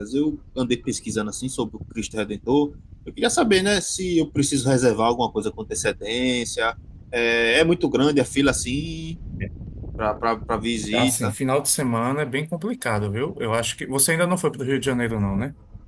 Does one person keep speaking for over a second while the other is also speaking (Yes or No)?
No